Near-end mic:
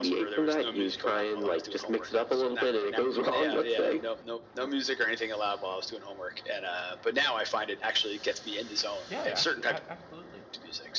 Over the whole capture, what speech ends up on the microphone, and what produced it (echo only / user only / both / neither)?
both